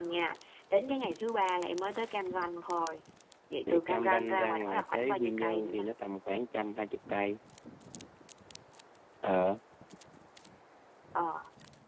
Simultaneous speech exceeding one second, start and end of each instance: 3.9-5.8

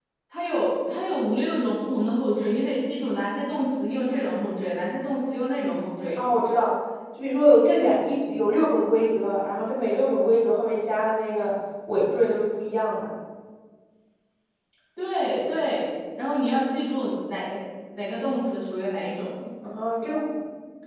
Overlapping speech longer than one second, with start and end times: none

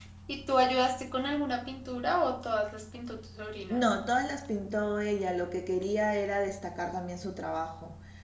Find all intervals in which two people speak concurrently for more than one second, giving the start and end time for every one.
none

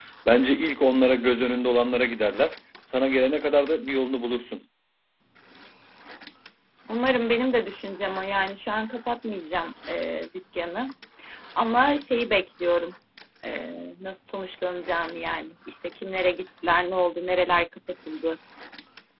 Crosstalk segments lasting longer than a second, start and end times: none

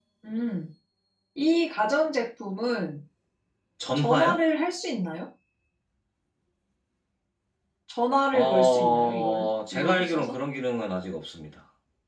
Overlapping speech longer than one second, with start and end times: 8.3-10.4

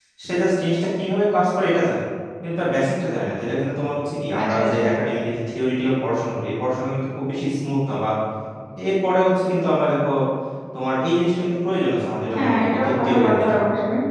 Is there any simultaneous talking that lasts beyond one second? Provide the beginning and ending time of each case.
12.3-13.6

